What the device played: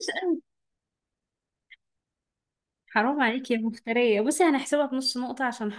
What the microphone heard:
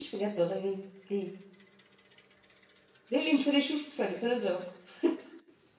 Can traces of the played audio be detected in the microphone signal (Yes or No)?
No